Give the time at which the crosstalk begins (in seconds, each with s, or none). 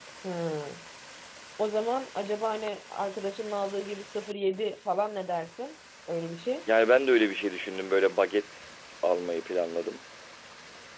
none